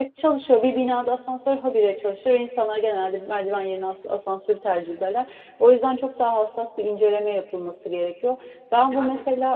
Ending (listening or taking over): listening